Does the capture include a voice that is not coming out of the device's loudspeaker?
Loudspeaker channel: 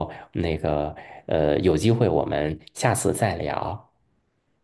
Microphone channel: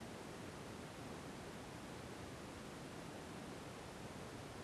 No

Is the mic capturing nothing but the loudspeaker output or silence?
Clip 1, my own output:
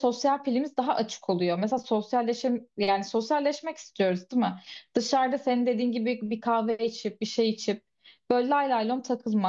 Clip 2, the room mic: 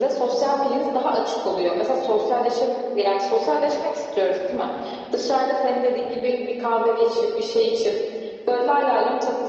Yes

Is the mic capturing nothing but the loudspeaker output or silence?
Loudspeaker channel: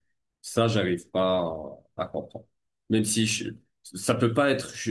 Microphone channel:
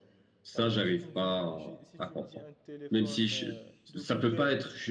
No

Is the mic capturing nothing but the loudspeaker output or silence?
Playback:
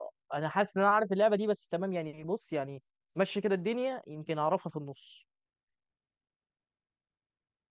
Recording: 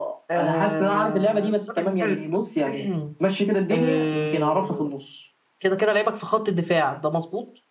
No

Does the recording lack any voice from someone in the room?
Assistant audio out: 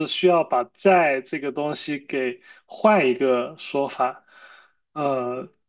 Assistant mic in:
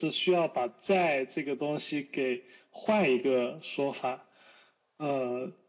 Yes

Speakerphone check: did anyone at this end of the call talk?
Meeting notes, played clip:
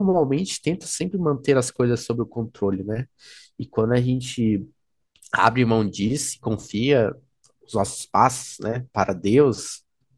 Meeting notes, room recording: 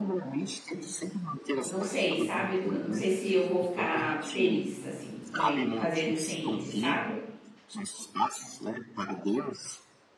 Yes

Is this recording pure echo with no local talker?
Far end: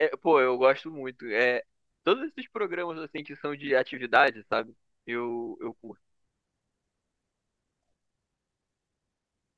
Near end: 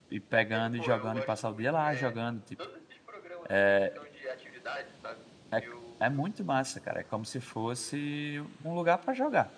No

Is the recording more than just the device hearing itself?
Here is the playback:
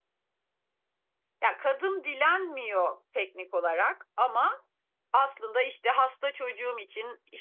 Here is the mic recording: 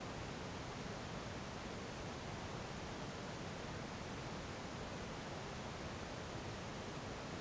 No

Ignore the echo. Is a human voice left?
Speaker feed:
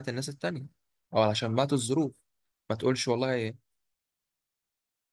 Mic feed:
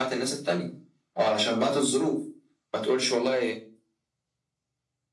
No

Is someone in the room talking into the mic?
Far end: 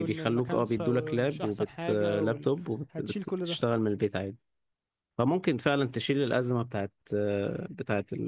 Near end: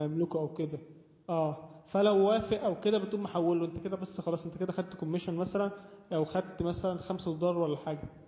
Yes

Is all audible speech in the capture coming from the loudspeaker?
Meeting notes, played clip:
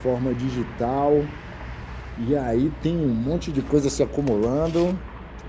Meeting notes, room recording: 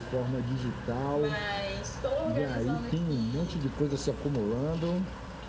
No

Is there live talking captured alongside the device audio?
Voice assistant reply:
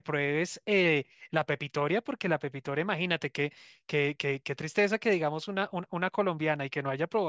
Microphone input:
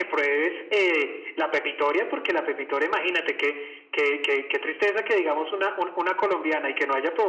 No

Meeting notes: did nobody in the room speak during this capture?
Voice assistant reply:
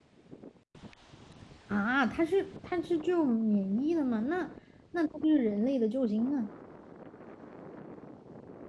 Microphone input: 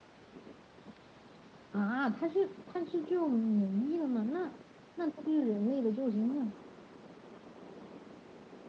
Yes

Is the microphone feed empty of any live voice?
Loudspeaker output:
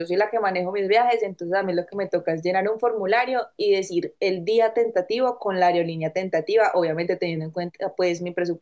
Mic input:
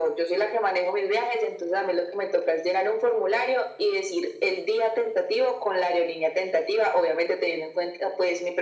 Yes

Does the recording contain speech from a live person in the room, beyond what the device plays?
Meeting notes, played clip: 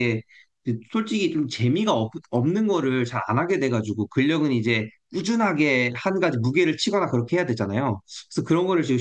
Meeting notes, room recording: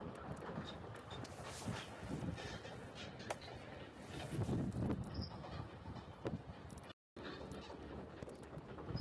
No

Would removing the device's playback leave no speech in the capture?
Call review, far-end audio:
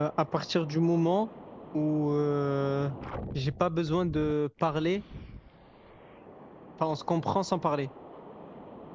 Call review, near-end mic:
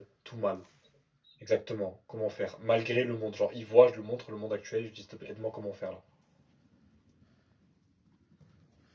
No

